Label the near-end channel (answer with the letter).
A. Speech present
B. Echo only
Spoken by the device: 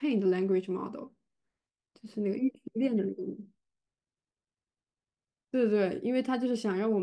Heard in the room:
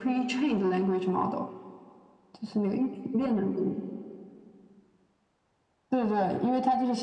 B